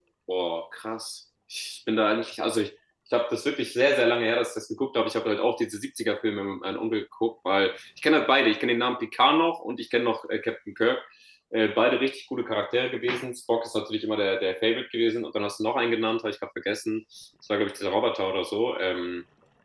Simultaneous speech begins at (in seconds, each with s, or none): none